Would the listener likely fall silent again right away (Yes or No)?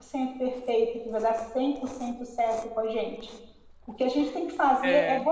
Yes